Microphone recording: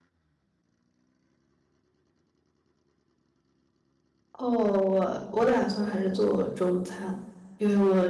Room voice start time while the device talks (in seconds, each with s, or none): 4.4 s